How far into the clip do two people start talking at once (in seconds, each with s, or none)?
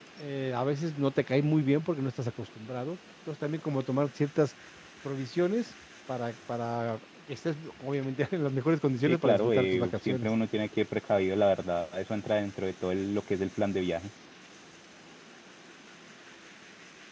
9.1 s